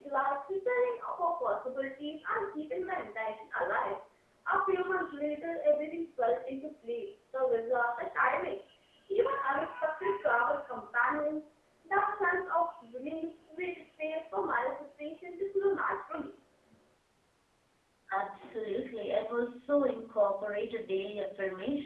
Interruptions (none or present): none